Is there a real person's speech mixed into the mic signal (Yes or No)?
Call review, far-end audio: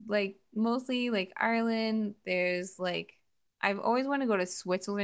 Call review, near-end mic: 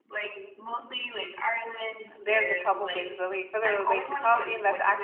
Yes